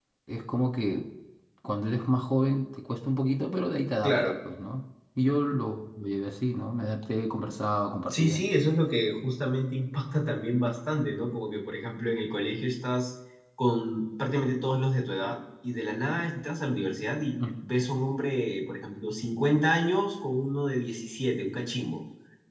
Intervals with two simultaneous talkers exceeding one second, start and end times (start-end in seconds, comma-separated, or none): none